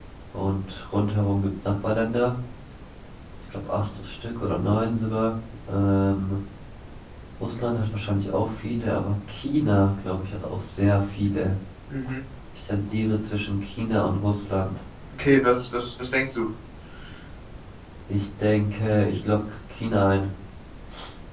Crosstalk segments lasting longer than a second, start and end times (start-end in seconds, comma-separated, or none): none